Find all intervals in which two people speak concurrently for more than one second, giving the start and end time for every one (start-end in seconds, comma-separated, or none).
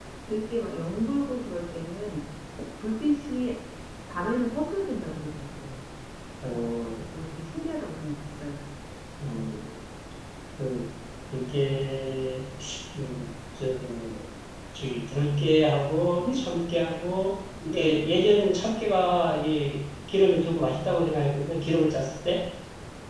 none